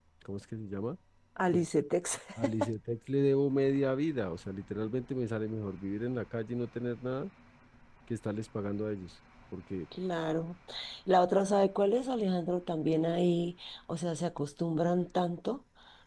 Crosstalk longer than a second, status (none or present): none